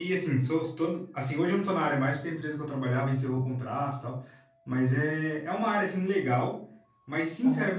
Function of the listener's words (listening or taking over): listening